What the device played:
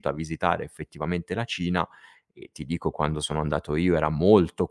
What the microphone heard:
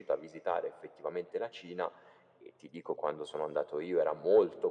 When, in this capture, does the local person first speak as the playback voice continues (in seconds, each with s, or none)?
none